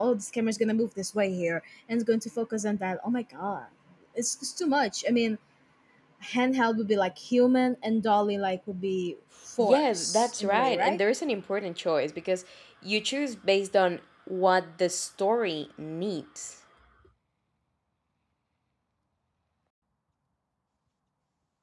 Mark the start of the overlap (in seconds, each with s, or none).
9.6 s